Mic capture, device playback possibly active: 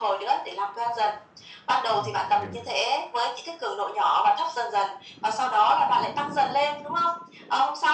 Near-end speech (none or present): present